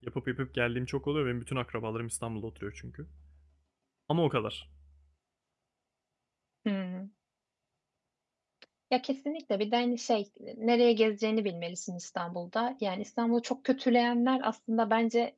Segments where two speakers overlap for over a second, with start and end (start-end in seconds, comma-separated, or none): none